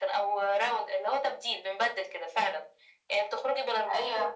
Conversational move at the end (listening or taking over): listening